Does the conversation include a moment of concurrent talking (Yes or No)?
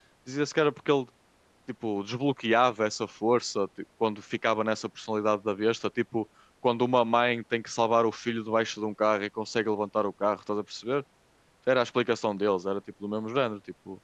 No